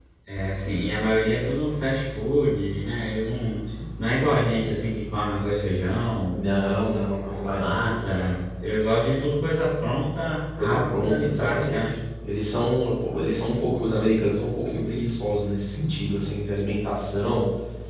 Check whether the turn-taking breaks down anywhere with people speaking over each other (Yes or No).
Yes